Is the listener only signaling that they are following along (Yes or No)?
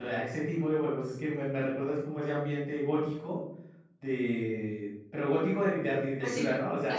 No